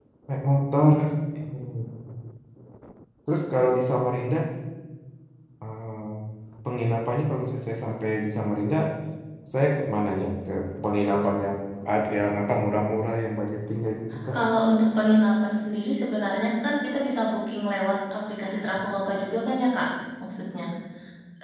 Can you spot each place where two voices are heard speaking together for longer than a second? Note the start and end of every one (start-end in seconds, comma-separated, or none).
none